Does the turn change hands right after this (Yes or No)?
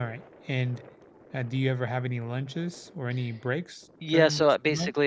Yes